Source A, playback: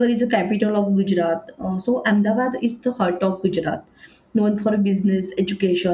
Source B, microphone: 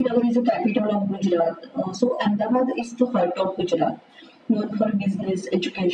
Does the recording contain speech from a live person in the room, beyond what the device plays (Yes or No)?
No